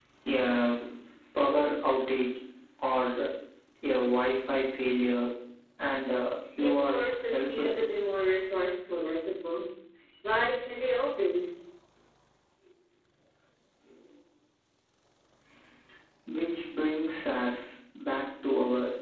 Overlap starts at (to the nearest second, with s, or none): 7 s